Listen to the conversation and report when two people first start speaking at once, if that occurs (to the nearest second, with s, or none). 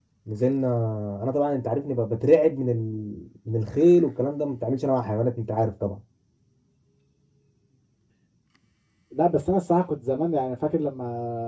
none